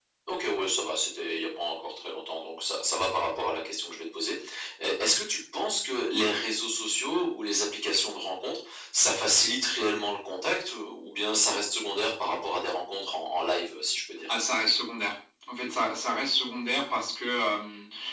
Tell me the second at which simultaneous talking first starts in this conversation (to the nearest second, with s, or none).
none